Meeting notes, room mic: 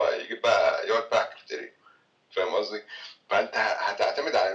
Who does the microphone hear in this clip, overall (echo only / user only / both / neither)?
echo only